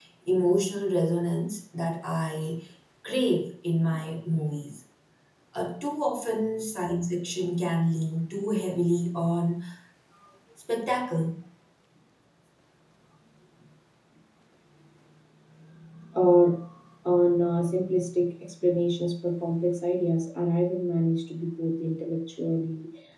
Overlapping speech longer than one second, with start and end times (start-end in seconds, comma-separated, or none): none